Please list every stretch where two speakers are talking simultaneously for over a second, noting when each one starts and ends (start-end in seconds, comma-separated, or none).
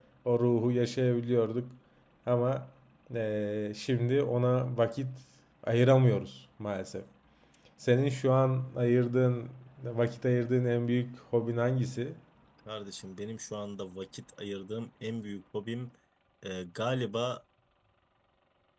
none